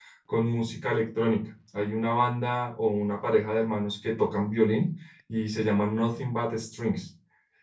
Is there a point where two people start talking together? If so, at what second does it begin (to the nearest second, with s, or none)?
none